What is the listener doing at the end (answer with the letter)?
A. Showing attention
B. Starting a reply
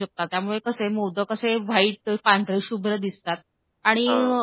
A